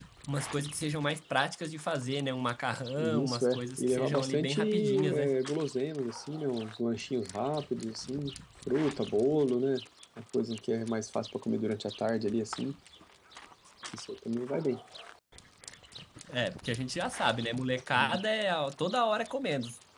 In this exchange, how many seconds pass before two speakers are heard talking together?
3.0 s

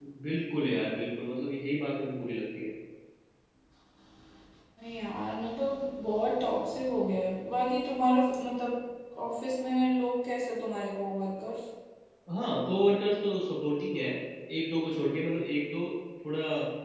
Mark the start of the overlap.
none

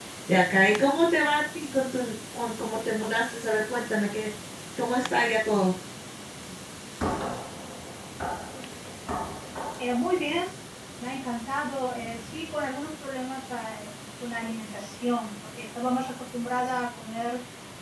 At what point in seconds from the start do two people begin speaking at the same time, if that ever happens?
none

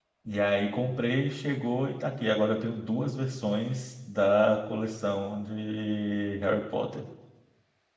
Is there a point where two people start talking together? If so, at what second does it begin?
none

